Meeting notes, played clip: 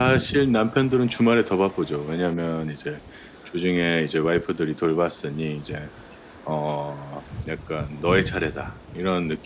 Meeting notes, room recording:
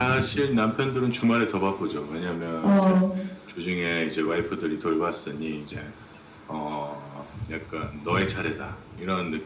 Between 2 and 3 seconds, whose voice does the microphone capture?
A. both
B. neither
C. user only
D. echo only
A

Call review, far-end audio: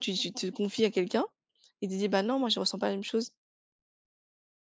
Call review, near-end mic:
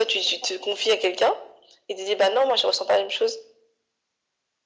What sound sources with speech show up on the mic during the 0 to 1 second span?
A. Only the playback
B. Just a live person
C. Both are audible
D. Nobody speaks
A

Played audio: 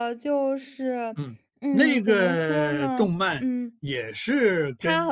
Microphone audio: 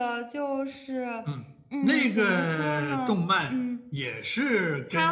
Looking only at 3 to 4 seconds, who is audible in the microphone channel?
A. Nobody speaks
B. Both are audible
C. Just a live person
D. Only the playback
D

